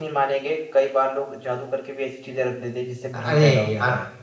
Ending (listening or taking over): taking over